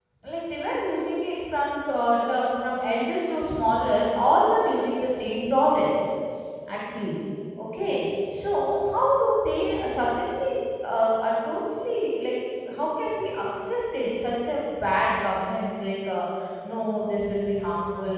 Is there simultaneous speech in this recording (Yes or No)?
No